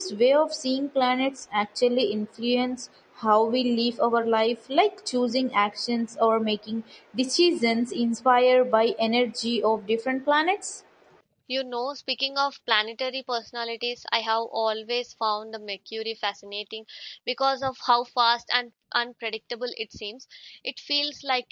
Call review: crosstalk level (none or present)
none